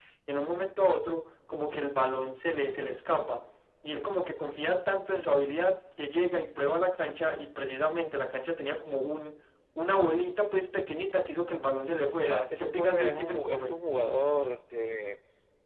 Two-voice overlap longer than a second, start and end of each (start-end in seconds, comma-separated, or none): 12.2-13.8